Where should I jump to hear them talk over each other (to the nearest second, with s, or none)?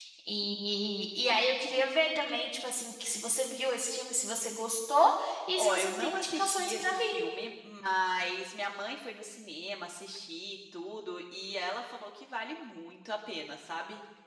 6 s